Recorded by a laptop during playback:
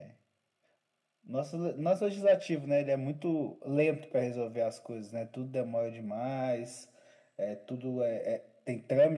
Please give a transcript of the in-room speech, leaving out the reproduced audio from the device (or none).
none